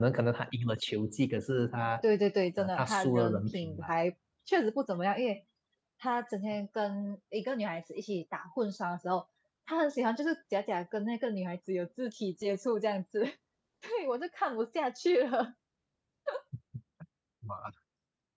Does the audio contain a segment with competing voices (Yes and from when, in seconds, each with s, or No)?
Yes, from 2.6 s